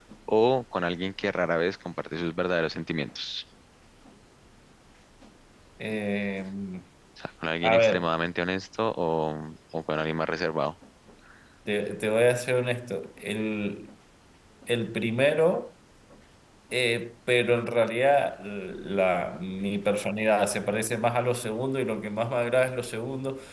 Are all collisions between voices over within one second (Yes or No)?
Yes